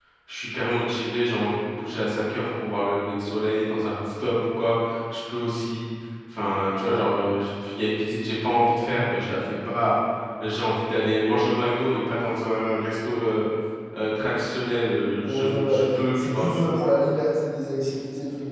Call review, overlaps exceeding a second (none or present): present